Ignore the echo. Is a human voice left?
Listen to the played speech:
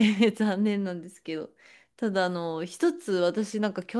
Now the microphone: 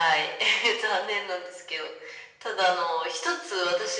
No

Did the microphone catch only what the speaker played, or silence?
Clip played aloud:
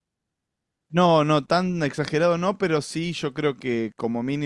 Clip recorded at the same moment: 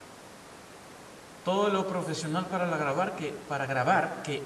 No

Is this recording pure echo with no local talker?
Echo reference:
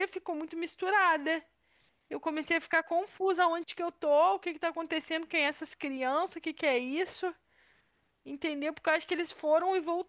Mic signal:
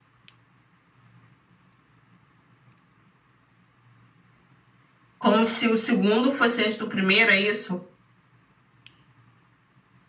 No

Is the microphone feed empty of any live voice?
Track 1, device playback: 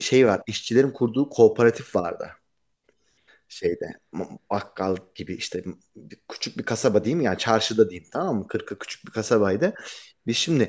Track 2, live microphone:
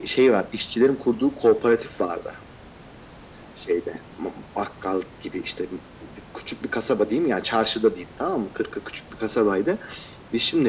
Yes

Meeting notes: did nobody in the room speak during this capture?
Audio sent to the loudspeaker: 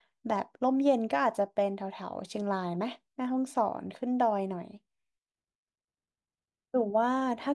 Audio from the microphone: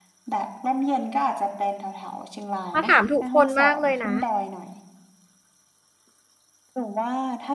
No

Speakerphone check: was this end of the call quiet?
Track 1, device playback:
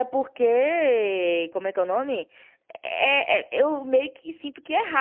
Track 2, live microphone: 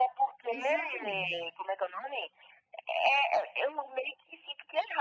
No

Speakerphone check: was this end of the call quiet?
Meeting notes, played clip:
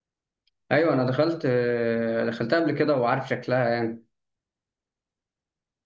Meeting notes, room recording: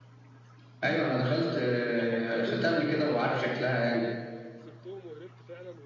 No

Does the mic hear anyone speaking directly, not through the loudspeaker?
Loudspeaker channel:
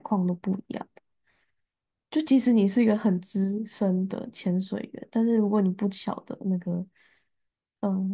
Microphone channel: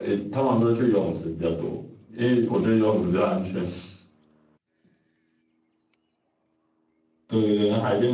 Yes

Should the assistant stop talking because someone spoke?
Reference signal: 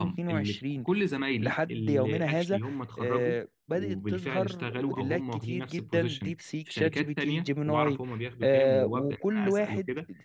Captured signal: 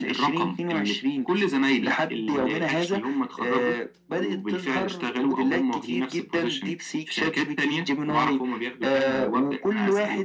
No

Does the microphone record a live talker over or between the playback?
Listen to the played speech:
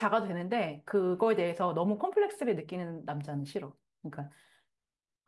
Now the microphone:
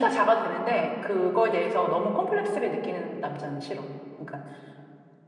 No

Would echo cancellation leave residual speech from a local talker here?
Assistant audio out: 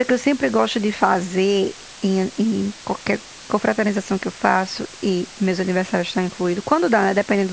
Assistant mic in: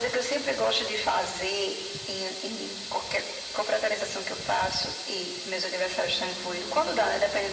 No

